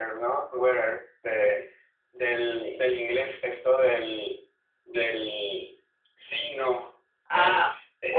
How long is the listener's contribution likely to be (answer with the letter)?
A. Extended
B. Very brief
A